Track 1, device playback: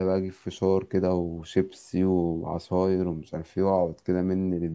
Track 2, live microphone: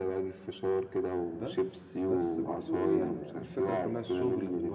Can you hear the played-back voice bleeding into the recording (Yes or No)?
Yes